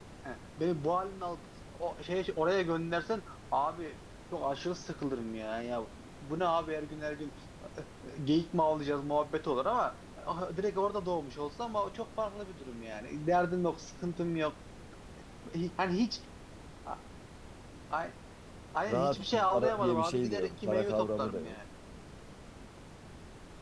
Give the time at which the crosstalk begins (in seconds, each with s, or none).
18.9 s